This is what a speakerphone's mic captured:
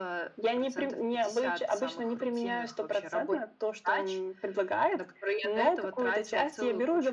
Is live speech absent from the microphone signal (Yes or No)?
Yes